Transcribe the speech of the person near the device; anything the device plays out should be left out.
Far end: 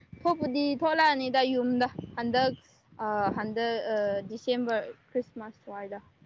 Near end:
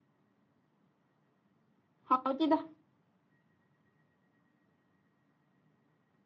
ꯍꯥꯎꯇꯤꯗ

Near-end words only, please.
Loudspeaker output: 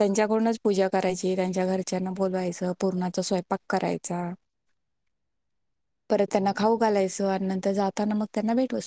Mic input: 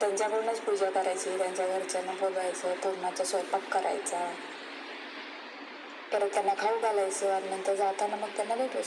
none

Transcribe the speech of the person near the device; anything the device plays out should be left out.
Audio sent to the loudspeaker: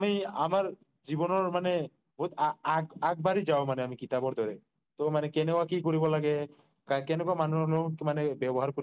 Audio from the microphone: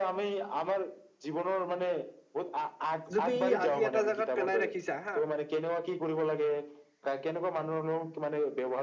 যদি আজি এটা জেগাত পেলাই ৰাখিছা হা

